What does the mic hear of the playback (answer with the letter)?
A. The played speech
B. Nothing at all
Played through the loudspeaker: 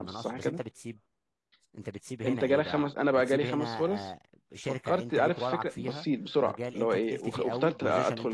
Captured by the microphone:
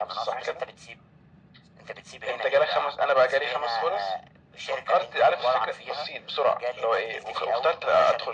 A